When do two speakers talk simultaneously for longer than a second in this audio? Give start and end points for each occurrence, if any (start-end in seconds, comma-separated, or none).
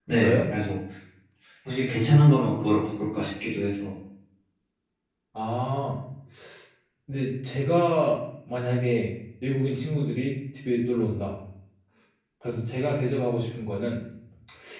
none